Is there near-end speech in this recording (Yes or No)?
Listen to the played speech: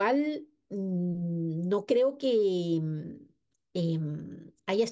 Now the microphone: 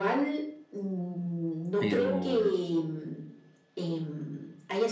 Yes